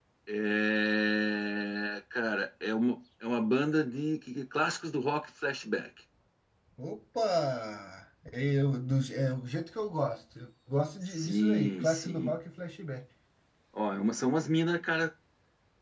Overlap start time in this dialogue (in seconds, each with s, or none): 11.1 s